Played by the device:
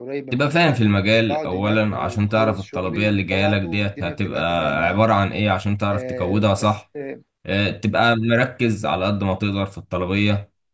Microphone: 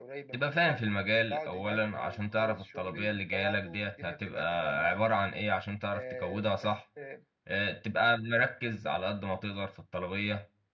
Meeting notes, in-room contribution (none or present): none